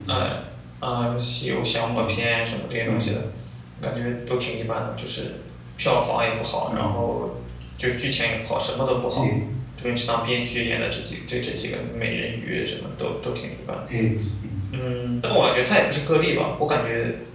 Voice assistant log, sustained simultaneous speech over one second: none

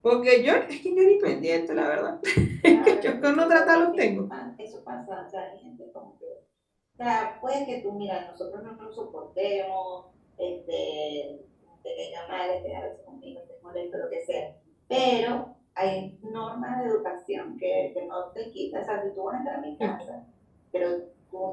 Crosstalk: present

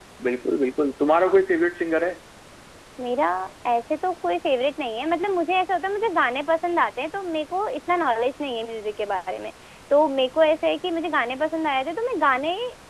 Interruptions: none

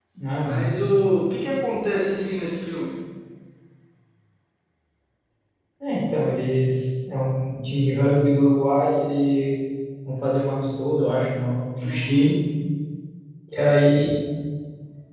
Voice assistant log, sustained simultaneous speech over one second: none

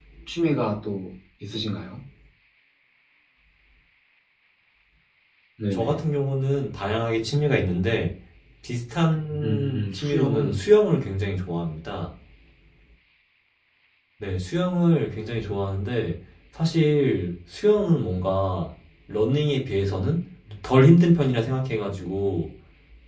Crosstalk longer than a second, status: present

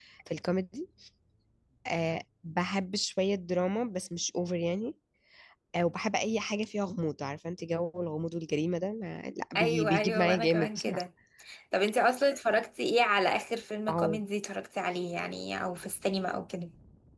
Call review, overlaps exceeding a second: present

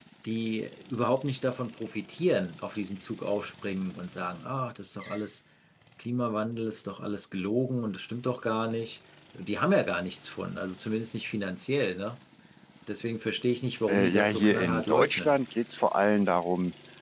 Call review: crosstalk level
present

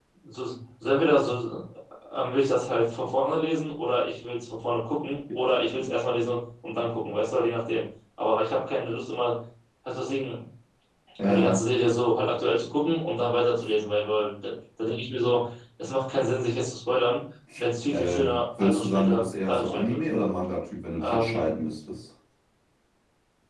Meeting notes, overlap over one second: present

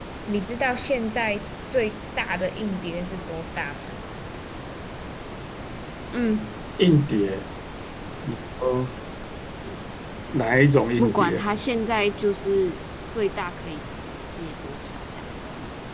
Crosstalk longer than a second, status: none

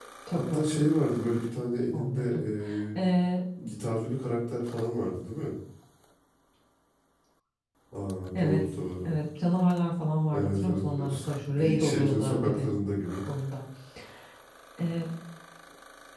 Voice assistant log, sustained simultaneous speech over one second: present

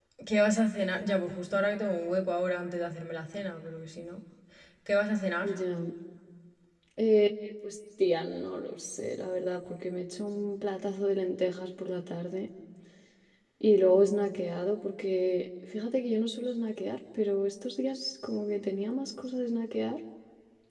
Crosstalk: none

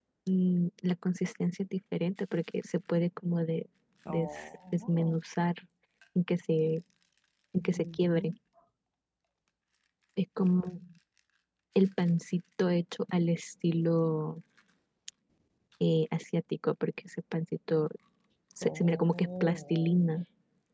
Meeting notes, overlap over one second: present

